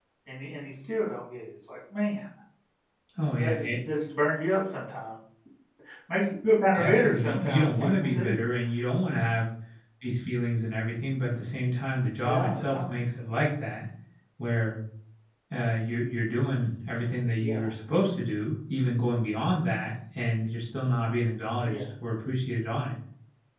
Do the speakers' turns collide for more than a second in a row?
Yes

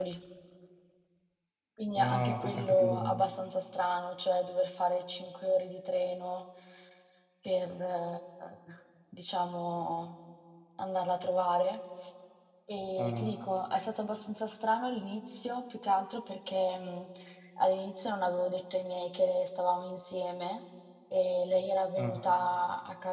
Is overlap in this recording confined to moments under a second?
No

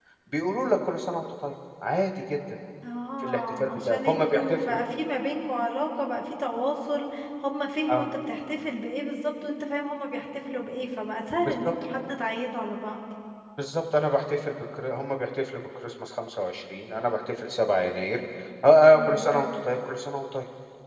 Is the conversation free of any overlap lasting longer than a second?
No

